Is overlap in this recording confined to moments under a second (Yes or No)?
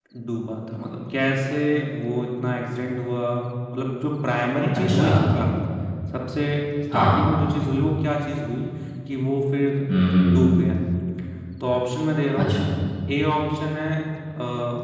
Yes